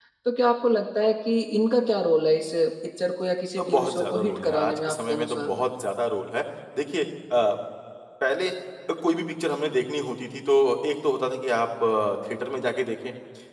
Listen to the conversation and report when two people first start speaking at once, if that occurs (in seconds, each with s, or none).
3.6 s